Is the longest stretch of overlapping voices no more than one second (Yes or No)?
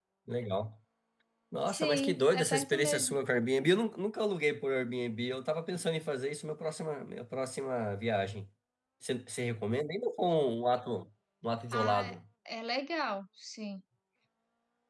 No